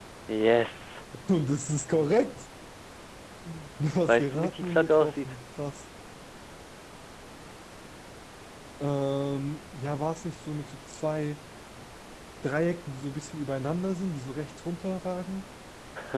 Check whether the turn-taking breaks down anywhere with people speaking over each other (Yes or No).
Yes